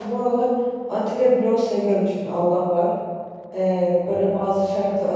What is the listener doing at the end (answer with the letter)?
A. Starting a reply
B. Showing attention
B